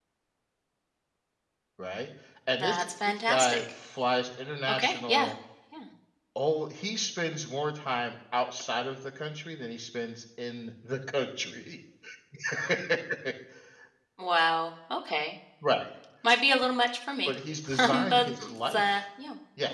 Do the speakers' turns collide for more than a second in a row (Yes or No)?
Yes